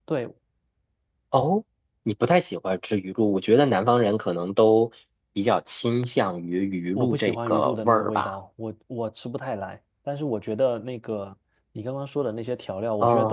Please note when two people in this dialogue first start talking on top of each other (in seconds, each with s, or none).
7.0 s